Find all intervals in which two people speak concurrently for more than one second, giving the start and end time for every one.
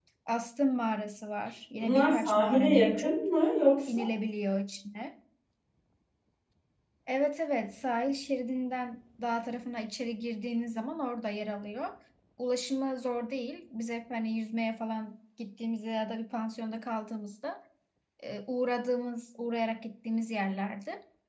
1.8-3.2

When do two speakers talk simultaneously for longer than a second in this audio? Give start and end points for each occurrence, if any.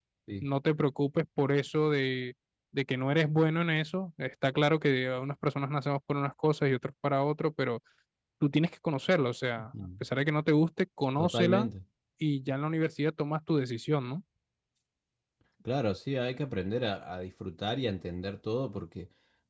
none

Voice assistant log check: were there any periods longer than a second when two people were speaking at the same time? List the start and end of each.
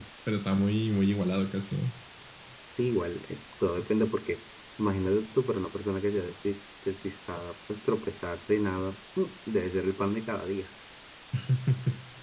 none

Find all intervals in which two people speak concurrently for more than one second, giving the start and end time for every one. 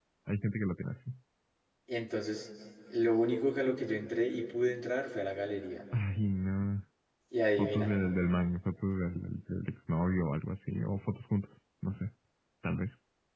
none

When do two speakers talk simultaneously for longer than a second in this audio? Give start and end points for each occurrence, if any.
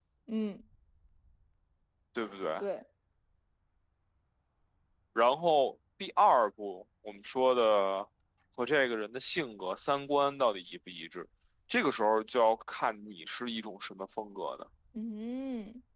none

